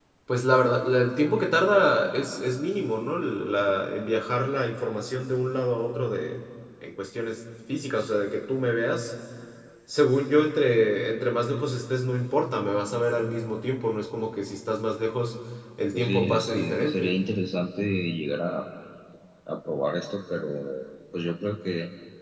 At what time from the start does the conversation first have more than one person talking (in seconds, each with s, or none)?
15.9 s